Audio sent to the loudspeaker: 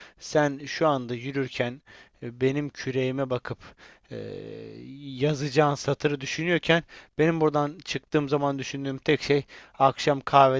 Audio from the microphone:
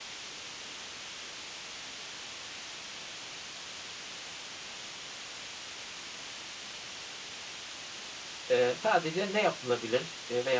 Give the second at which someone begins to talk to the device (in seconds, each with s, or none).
8.5 s